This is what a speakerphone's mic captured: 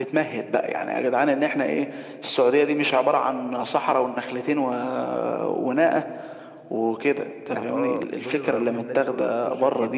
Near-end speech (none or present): present